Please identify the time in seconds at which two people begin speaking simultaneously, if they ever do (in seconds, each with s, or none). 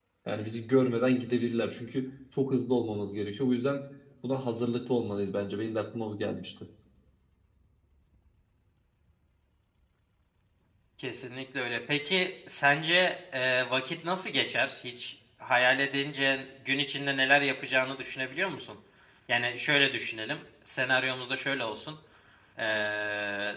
none